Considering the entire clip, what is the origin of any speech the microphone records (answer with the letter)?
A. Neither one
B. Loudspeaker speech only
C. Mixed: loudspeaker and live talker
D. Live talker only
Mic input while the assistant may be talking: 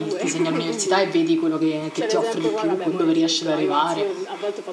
C